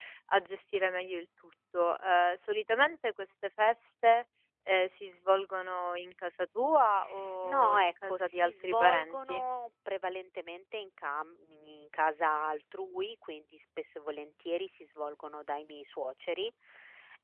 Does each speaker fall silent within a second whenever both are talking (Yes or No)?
No